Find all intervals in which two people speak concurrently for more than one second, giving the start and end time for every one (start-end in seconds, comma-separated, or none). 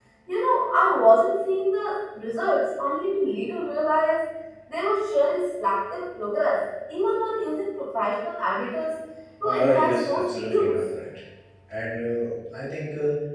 9.4-10.7